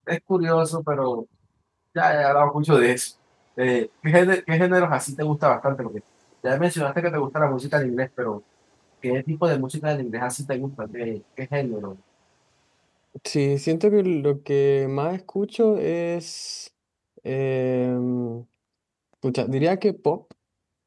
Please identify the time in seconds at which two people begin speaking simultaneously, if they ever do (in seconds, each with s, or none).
none